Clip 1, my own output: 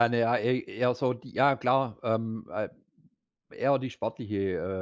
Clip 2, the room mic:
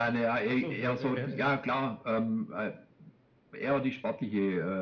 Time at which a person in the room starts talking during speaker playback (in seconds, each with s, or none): 0.5 s